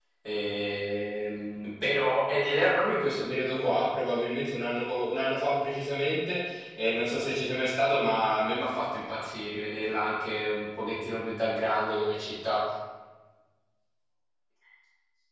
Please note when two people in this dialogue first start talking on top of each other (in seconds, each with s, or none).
none